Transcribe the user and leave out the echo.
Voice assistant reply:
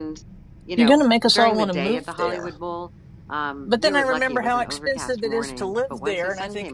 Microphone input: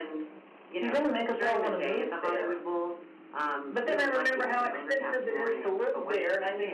none

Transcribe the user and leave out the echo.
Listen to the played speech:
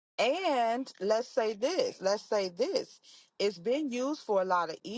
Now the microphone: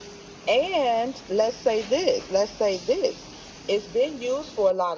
none

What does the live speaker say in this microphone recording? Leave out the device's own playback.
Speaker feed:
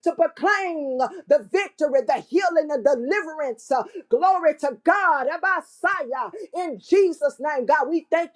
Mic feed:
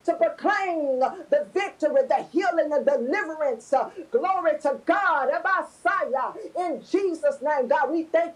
none

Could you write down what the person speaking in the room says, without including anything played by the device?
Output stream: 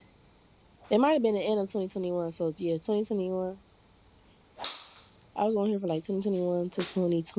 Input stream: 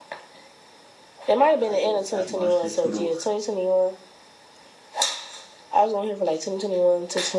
Ohio. That's my shit too, though.

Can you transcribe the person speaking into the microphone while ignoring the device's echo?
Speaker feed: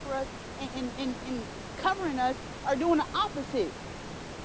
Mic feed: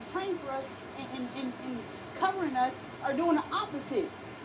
none

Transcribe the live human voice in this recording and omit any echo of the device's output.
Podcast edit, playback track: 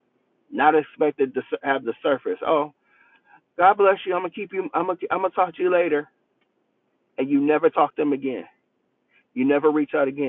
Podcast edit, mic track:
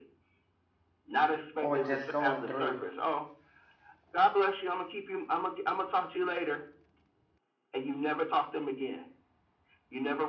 or just going through.

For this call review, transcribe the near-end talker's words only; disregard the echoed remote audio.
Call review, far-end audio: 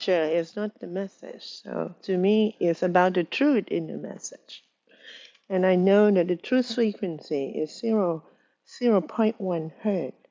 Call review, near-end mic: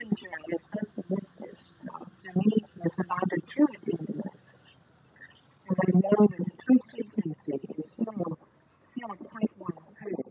none

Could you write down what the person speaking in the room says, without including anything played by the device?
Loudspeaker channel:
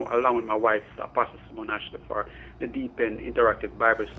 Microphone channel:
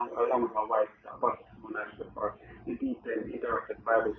none

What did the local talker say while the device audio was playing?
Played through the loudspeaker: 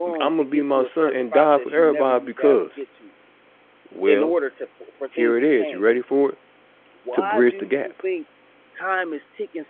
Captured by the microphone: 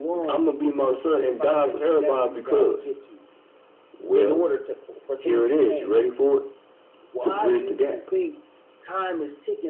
none

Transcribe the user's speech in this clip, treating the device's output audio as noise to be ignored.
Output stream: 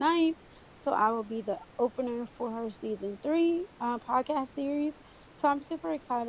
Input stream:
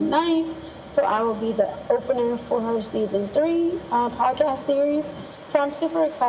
none

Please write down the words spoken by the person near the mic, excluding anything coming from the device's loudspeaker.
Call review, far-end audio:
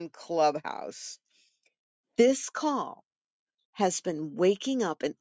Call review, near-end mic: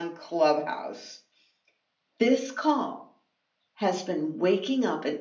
none

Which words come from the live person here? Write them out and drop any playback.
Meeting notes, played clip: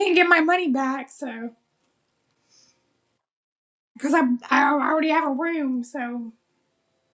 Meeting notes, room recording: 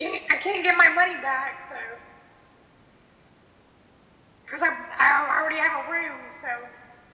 none

